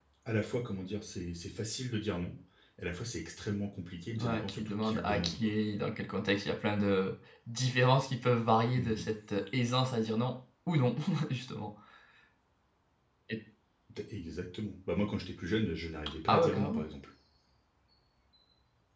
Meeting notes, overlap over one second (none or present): present